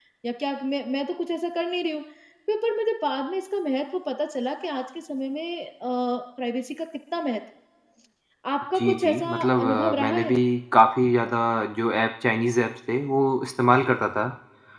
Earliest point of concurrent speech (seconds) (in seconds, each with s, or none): 8.8 s